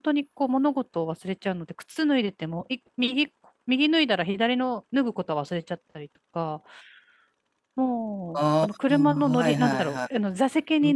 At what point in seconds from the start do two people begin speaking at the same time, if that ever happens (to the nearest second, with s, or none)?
8 s